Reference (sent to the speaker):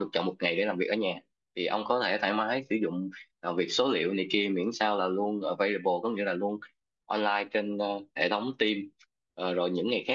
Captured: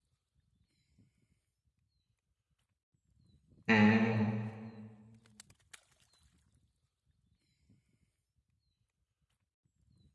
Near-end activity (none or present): present